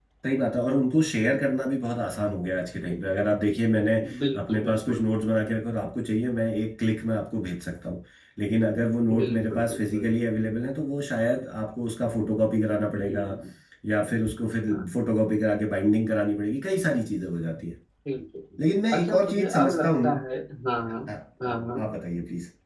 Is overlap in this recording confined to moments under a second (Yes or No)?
No